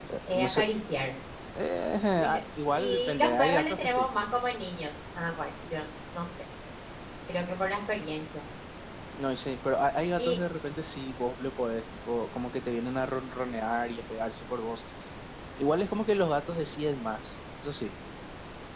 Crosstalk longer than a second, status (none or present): present